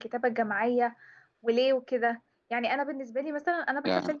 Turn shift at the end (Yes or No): No